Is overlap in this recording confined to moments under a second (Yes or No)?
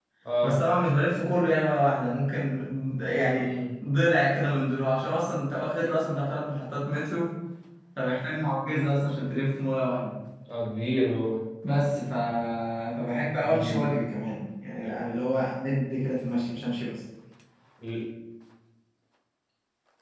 Yes